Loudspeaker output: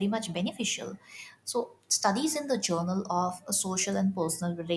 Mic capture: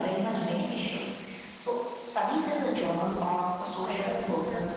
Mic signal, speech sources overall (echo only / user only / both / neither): both